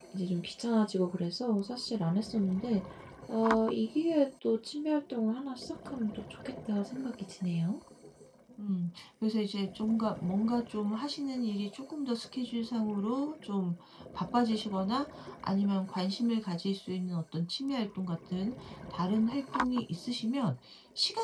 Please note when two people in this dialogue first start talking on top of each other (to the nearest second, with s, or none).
none